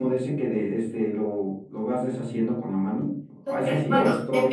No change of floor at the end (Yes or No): No